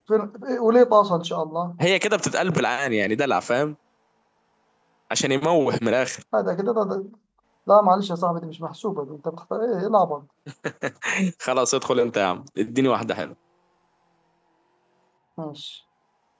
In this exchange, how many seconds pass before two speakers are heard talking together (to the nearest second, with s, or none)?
none